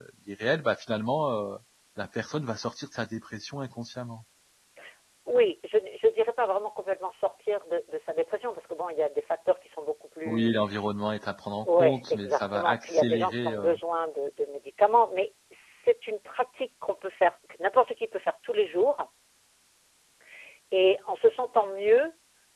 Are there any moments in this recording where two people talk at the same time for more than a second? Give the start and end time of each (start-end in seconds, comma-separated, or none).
11.7-13.8